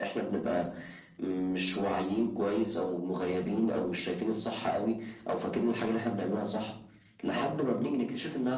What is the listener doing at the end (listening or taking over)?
listening